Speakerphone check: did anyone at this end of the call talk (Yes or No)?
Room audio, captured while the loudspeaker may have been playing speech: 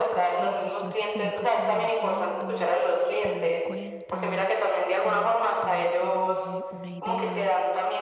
Yes